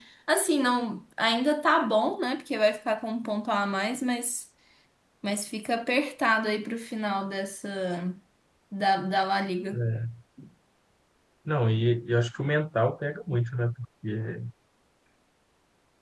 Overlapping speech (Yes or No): No